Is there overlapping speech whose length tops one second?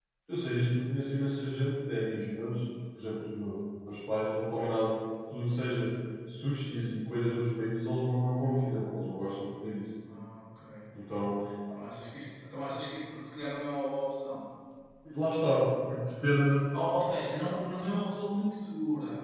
No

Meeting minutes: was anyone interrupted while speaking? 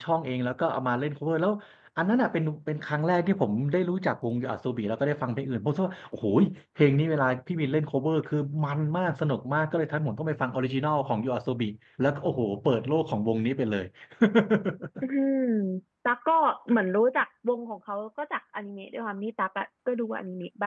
No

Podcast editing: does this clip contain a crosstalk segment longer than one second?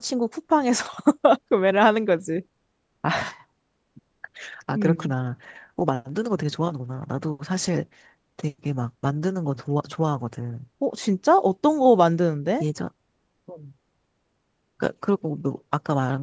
No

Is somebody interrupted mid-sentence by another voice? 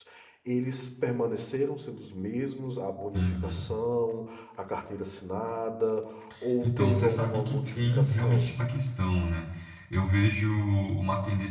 Yes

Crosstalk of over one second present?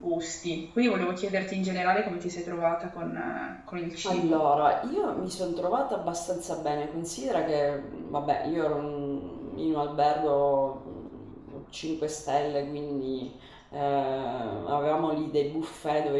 No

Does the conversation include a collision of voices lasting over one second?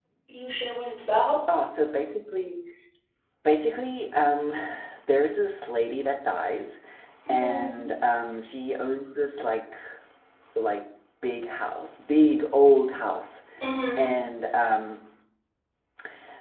No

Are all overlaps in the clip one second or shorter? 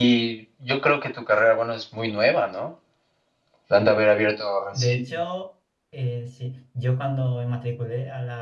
Yes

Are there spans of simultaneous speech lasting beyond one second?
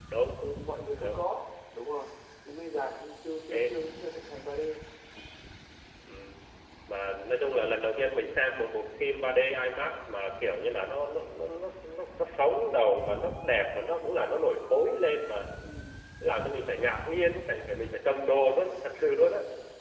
No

